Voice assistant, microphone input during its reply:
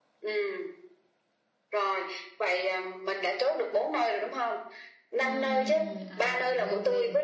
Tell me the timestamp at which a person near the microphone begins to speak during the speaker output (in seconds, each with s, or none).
5.2 s